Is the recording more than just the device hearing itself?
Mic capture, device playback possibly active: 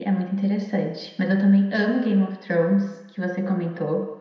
No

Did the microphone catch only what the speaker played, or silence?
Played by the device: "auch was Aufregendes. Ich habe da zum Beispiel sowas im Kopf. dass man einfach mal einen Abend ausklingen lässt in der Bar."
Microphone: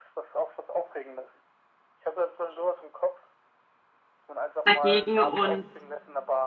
No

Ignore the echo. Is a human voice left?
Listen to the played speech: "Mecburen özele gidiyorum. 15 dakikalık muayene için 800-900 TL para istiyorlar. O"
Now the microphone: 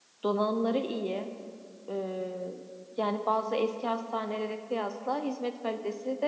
Yes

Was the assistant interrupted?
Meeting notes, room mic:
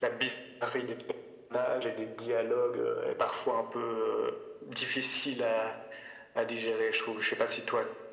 No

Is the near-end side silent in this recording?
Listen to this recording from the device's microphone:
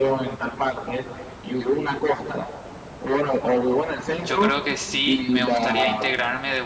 No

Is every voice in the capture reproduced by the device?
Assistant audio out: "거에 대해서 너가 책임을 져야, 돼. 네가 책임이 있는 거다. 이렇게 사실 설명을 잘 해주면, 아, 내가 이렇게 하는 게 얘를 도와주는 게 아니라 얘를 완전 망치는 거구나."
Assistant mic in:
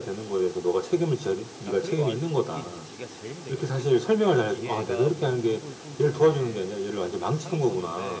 No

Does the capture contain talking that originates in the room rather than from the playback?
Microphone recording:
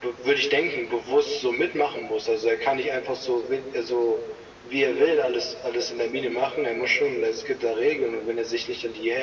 No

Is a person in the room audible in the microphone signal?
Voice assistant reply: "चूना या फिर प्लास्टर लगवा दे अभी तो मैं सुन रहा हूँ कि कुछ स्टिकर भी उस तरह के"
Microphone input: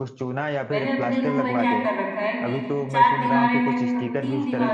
Yes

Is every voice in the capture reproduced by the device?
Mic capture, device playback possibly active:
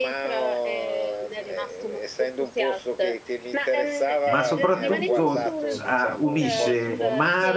No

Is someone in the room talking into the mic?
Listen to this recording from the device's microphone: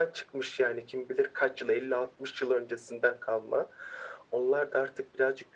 No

